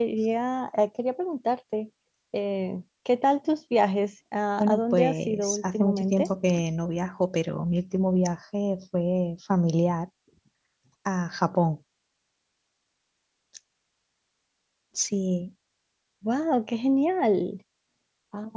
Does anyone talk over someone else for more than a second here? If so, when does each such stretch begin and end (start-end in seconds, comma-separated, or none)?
4.6-6.3